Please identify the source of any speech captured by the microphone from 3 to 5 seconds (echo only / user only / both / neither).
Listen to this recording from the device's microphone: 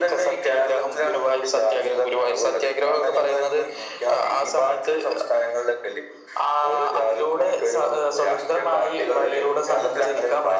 echo only